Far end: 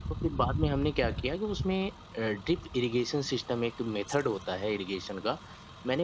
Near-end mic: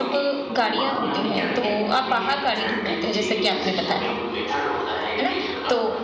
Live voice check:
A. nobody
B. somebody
B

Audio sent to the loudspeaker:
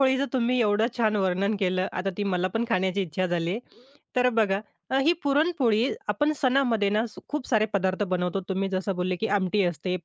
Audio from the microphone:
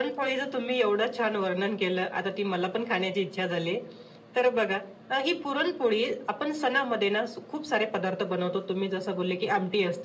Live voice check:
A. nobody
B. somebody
A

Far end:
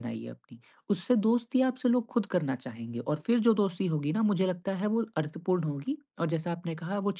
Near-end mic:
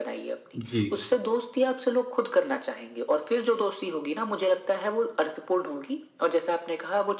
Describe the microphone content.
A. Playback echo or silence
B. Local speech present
B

